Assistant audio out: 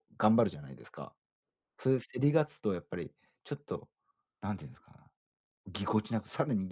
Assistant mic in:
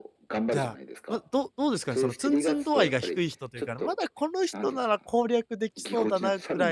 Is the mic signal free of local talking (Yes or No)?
No